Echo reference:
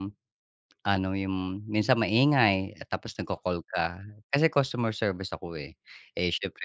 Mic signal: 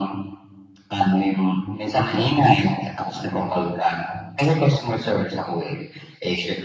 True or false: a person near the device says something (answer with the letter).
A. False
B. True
A